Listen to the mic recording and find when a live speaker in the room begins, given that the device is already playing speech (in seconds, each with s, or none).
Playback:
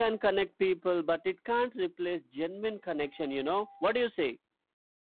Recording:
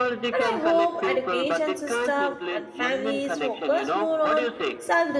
0.3 s